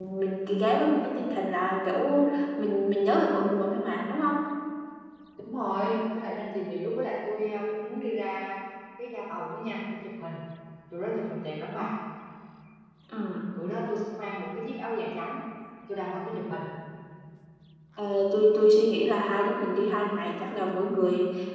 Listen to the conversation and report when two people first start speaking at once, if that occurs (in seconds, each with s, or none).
none